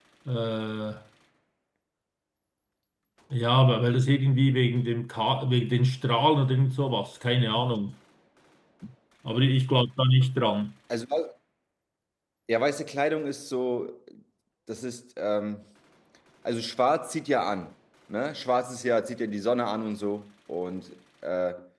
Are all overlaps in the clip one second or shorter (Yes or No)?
Yes